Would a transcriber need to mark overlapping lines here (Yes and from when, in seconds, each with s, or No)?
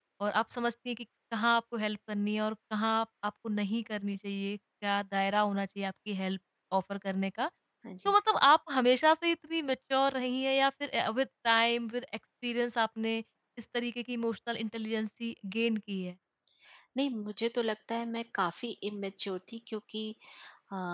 No